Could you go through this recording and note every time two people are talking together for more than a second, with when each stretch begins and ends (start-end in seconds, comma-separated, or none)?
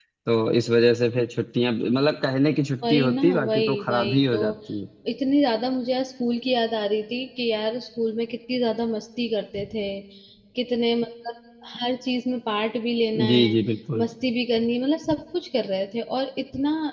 2.9-4.4